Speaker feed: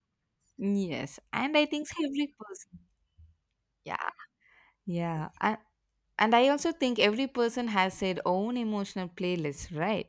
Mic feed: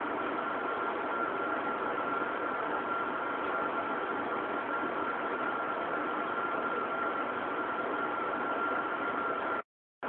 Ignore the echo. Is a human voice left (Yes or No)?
No